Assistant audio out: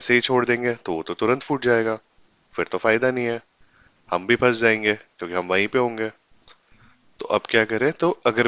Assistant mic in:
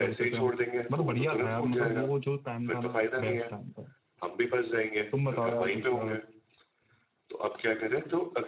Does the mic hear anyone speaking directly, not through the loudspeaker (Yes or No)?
Yes